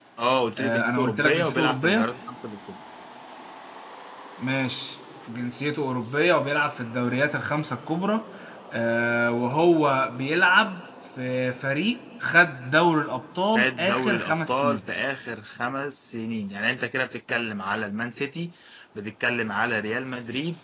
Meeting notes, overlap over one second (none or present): present